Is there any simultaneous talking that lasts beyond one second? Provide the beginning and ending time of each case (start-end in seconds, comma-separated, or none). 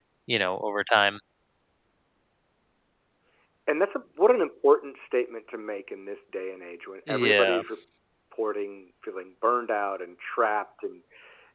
none